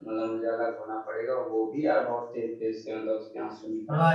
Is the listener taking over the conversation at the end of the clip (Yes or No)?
Yes